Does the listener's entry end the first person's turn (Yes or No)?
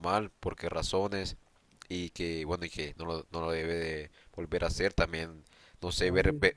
No